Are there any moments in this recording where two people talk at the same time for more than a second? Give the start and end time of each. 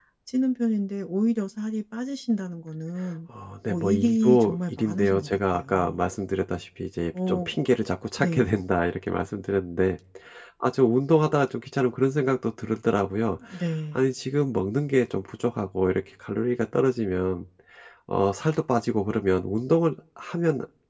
3.7-6.0

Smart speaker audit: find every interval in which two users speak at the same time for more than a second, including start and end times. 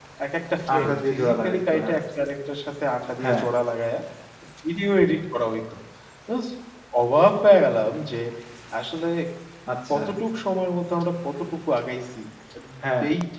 0.7-2.0

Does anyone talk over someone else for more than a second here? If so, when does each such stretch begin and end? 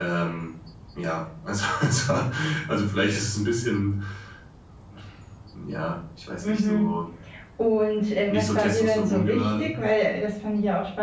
8.3-9.7

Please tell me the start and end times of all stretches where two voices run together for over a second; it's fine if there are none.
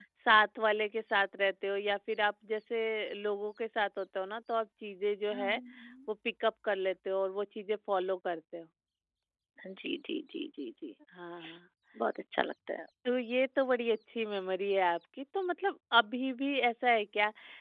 none

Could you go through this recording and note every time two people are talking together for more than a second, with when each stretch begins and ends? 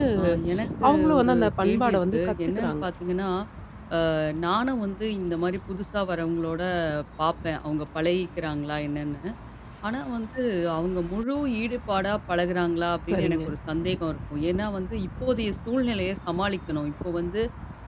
0.9-2.8

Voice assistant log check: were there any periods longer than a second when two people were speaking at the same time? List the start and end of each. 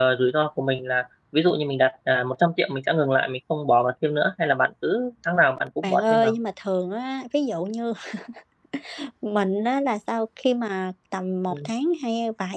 none

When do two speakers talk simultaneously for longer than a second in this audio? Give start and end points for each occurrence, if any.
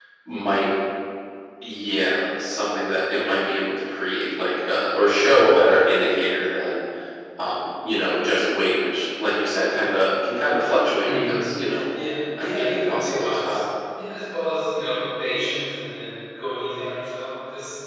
12.4-13.6

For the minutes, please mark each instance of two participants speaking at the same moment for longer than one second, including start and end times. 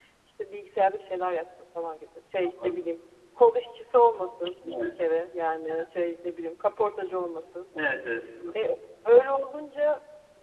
none

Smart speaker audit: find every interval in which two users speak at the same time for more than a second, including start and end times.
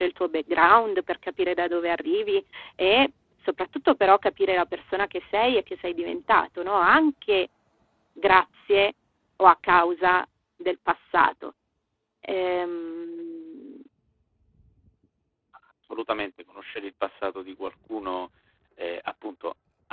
none

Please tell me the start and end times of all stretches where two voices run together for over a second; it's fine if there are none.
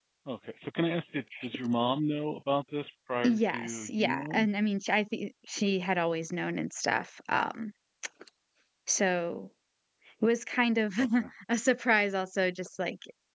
3.2-4.5

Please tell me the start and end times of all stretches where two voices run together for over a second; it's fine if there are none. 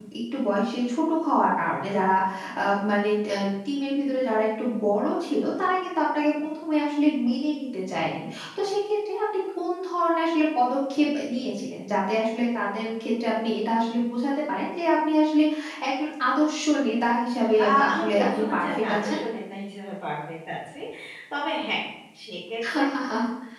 17.6-19.2

